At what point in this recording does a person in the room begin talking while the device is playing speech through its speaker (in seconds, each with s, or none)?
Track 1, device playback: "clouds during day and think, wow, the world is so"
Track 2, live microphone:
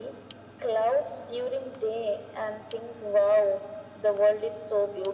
none